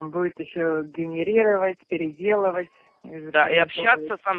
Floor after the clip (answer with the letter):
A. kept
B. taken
B